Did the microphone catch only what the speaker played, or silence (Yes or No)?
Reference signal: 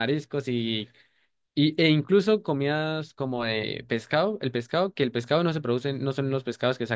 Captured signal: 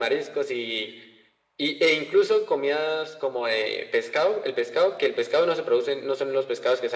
Yes